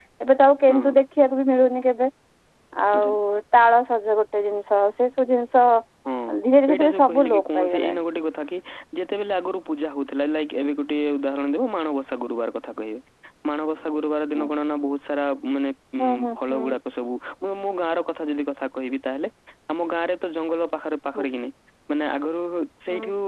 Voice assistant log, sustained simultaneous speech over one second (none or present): present